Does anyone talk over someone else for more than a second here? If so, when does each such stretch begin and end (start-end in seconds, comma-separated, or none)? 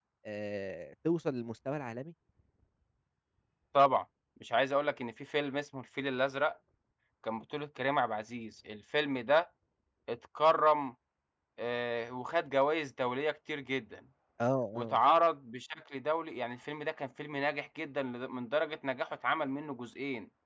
none